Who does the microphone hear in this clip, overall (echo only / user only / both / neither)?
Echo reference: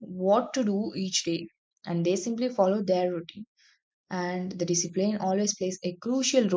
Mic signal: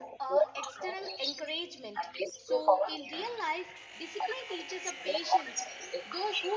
both